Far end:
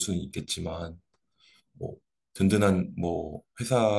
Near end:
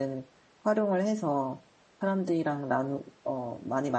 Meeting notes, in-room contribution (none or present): present